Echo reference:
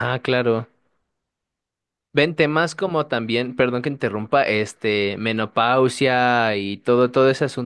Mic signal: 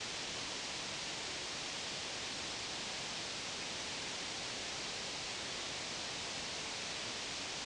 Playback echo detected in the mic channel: No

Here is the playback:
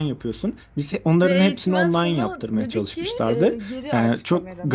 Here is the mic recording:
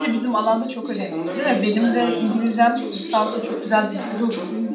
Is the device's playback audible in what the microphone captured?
Yes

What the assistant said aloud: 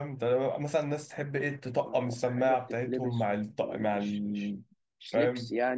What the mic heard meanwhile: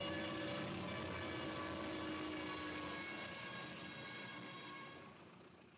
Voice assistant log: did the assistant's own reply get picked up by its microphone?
No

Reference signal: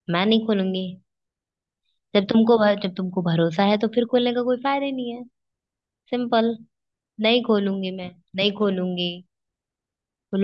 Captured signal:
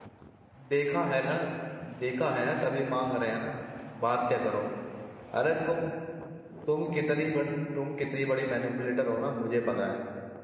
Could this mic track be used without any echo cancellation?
Yes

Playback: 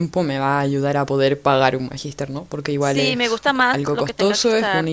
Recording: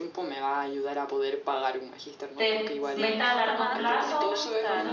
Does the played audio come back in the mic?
Yes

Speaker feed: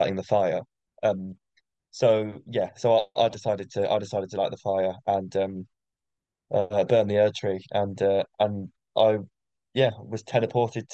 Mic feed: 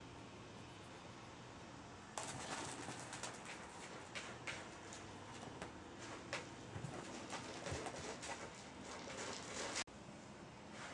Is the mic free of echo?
Yes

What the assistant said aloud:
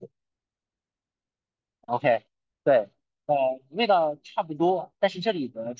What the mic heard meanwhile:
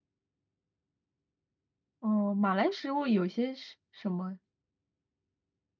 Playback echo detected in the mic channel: No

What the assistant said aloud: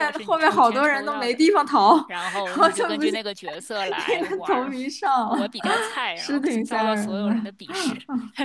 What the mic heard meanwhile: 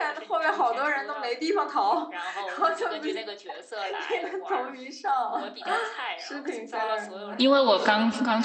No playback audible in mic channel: No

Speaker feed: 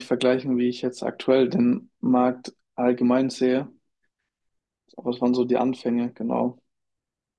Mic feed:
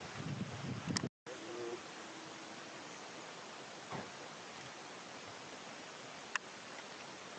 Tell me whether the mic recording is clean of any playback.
Yes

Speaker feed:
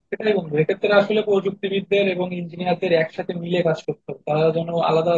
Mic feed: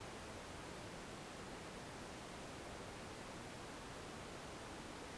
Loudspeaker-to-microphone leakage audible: No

